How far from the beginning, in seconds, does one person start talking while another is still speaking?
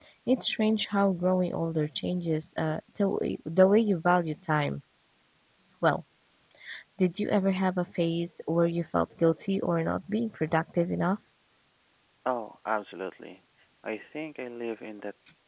none

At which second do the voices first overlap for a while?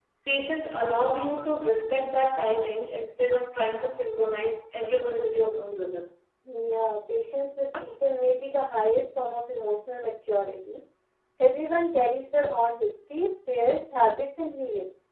none

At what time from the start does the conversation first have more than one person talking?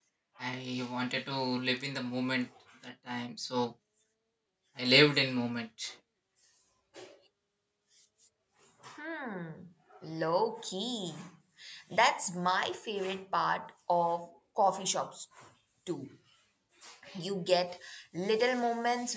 none

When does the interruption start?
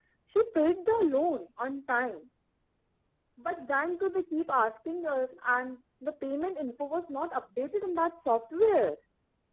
none

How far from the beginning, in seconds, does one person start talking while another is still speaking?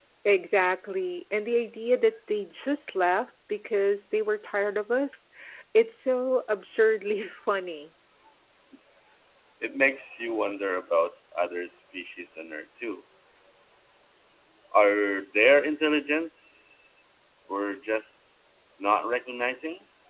none

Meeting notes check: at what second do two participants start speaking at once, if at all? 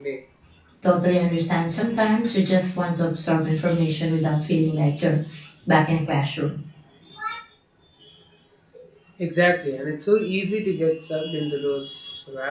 none

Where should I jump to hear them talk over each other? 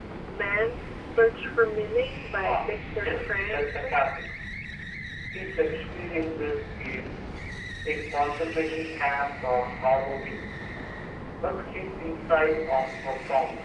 2.4 s

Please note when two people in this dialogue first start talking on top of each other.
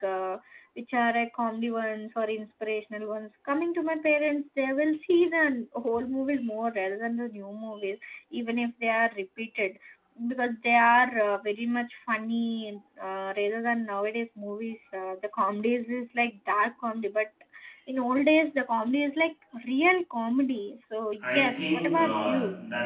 21.2 s

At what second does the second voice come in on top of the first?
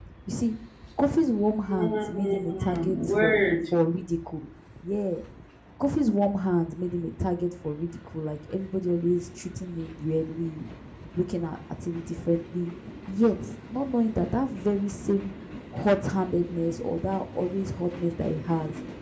1.8 s

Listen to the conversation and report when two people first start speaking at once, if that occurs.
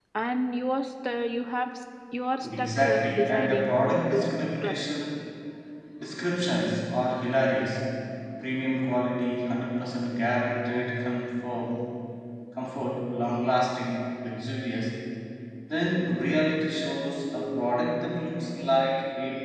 2.4 s

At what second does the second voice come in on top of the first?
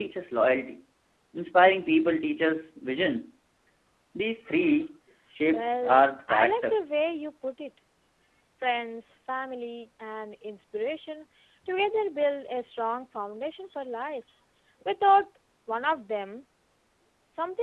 5.5 s

